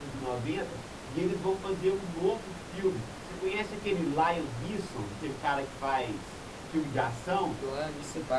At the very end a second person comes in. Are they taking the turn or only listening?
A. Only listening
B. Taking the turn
B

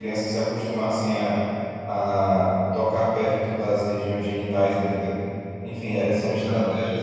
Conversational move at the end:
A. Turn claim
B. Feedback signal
B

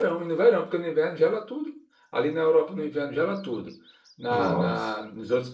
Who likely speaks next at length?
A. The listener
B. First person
B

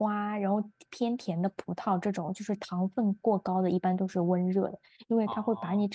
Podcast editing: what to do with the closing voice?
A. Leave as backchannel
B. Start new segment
A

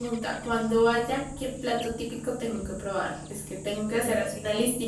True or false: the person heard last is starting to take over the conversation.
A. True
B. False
B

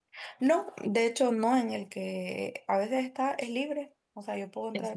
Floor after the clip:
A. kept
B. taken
A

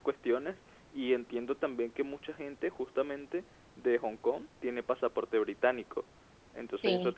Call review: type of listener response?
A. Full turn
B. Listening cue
B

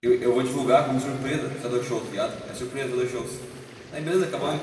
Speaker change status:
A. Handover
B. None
B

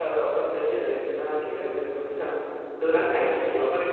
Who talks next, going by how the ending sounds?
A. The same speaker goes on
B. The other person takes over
B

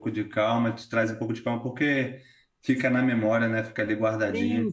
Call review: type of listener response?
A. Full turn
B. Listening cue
A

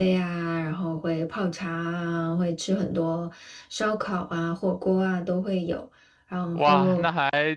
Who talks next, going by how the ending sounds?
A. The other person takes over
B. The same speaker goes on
A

